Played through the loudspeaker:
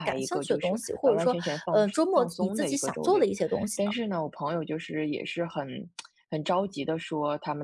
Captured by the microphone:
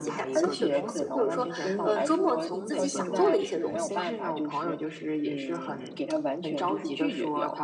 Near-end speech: present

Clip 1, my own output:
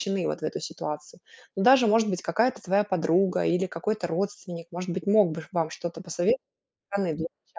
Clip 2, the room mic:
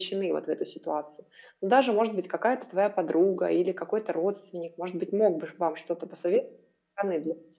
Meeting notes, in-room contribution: none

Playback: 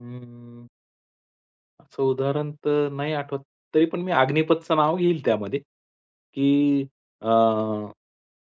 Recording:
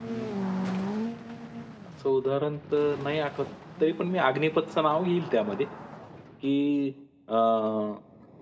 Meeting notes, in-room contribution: none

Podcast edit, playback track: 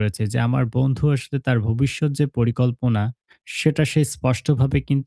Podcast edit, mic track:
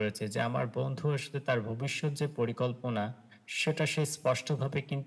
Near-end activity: none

